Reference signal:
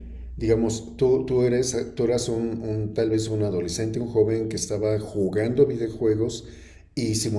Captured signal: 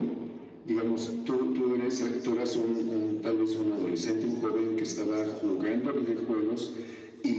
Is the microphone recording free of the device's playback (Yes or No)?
No